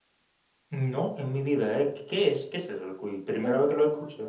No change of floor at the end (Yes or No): No